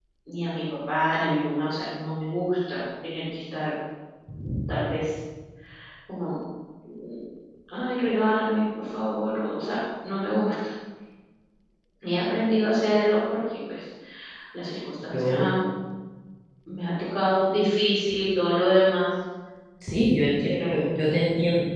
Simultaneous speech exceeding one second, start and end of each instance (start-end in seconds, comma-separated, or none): none